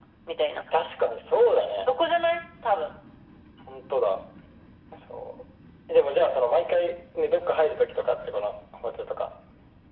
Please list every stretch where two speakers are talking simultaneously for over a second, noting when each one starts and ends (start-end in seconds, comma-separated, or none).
none